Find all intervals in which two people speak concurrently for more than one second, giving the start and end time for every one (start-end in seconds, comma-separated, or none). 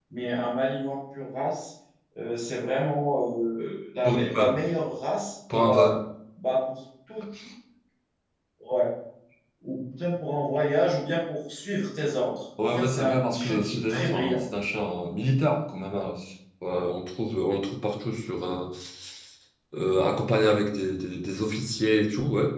12.6-14.4